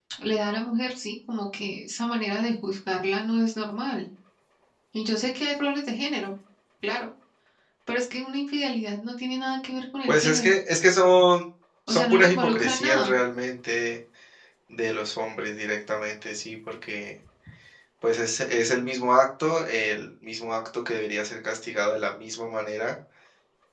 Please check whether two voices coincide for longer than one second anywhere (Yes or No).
Yes